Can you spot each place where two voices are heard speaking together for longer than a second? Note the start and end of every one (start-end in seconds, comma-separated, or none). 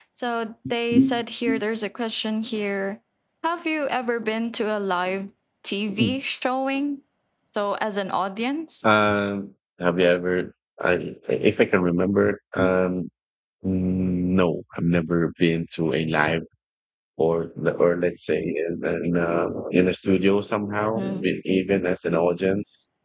none